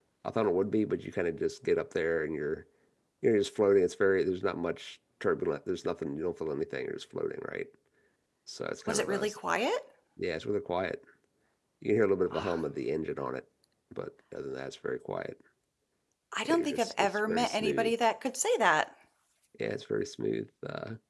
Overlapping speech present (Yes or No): Yes